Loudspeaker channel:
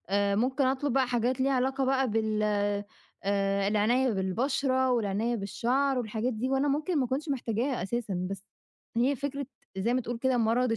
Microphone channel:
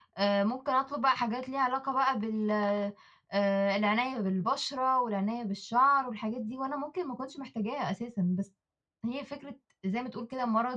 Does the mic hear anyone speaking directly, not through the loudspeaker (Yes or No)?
No